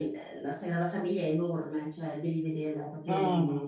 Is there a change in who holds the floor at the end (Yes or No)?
No